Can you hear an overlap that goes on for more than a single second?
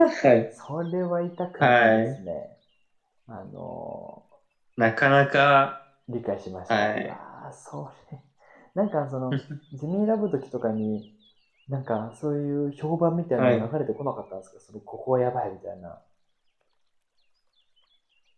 No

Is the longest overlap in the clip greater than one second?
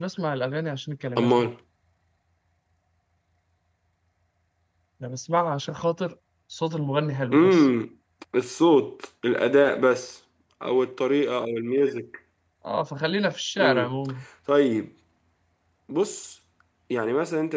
No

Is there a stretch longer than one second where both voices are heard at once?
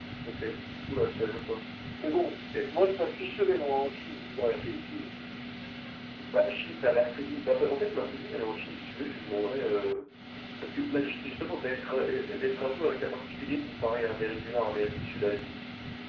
No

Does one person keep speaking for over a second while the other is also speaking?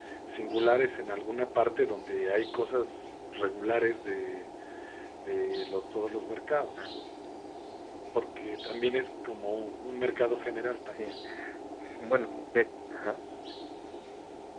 No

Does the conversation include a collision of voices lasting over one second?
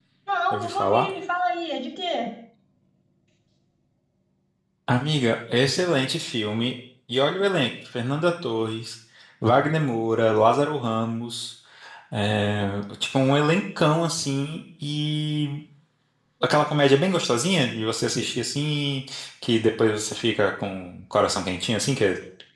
No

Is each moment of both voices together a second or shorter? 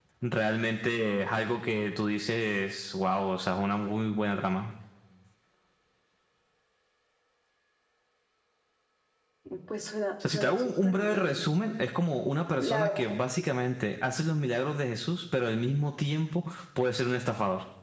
No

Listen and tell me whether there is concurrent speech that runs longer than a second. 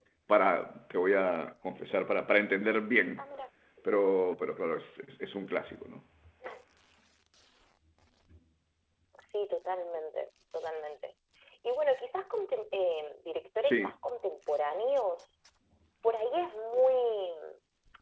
No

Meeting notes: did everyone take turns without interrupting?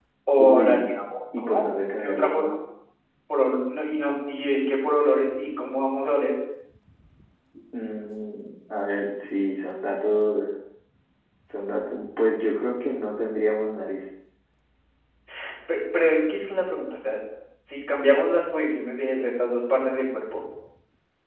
No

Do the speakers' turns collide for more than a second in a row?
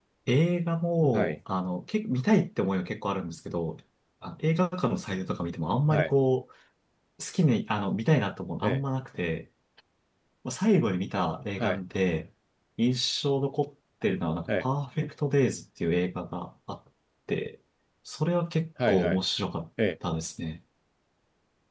No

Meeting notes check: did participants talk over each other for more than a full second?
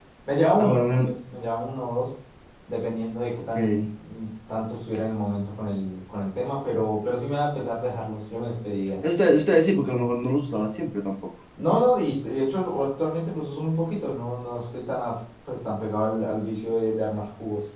No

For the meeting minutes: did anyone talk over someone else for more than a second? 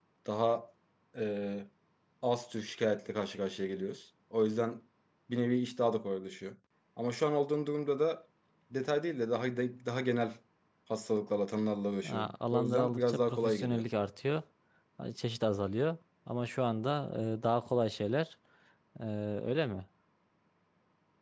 Yes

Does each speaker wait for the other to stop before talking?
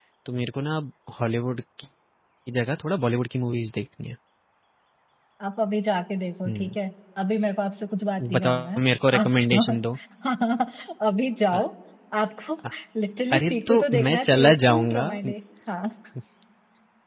No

